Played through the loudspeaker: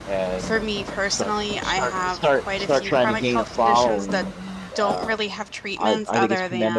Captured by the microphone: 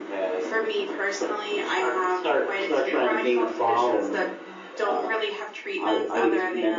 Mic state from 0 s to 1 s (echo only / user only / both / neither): echo only